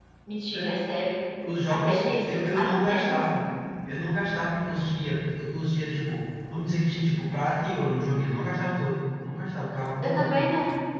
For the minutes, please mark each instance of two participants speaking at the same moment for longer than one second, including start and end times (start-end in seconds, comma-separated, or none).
1.7-3.4